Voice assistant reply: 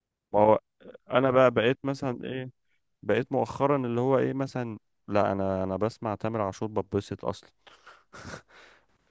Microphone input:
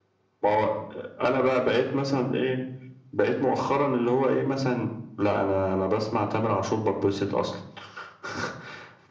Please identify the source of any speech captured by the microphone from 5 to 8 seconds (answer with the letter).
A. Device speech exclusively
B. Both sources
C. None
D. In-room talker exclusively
A